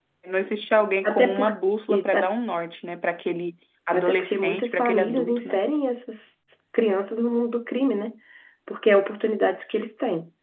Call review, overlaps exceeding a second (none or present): present